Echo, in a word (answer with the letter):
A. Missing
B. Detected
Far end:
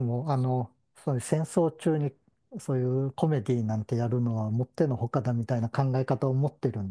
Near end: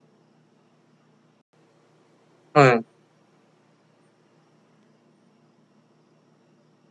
A